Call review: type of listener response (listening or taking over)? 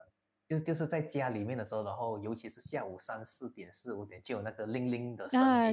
taking over